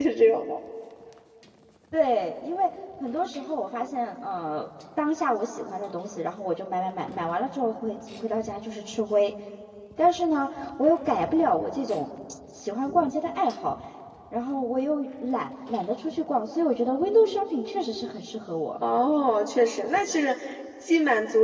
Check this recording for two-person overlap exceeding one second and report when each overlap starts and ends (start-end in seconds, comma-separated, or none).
none